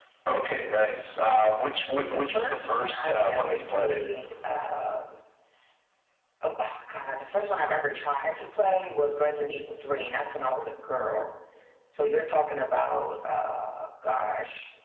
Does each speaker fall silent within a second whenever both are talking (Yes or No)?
No